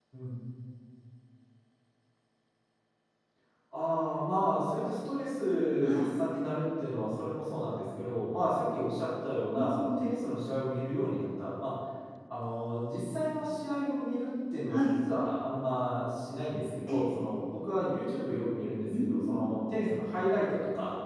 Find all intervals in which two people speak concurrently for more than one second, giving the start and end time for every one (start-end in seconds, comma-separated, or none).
none